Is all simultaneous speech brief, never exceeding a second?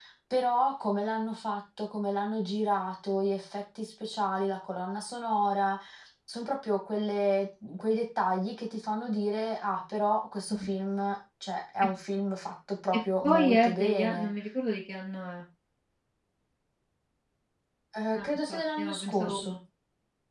No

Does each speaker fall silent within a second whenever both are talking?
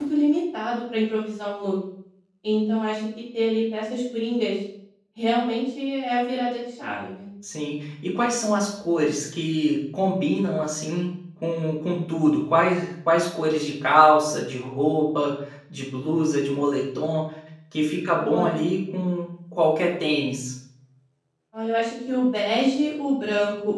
Yes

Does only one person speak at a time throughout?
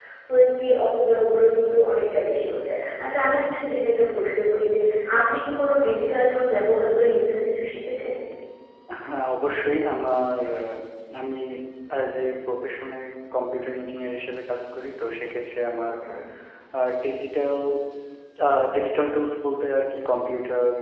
Yes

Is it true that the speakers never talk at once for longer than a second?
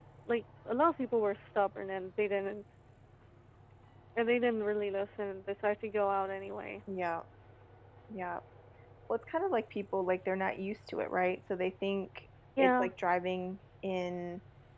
Yes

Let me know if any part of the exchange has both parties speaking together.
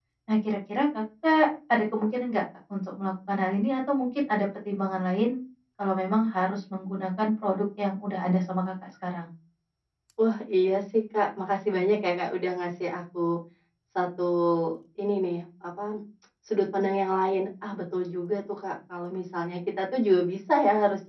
No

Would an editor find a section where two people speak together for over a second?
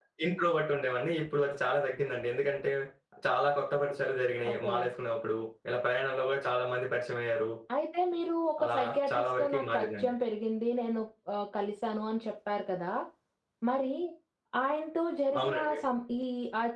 Yes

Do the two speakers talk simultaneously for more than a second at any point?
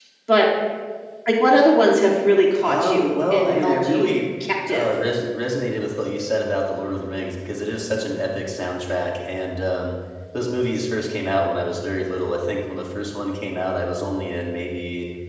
Yes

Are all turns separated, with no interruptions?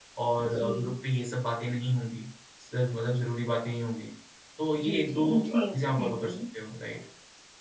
No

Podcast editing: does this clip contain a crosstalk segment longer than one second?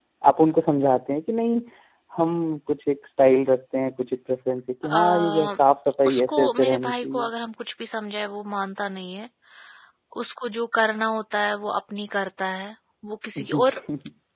Yes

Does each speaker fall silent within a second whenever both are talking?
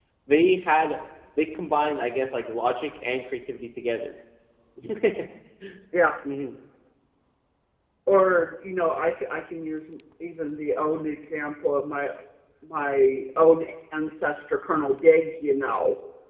Yes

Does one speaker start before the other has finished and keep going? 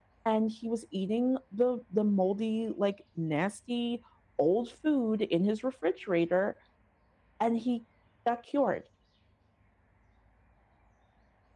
No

